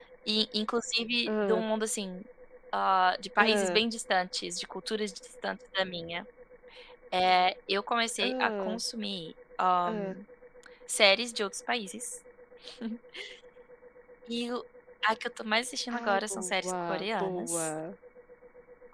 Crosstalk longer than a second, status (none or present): present